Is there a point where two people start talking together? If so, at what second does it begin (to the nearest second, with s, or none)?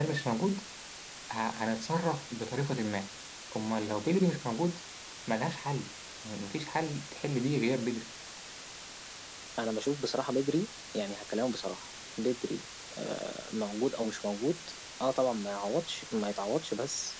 none